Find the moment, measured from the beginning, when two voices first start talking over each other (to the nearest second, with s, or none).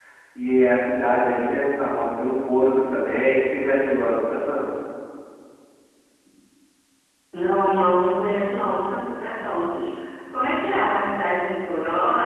none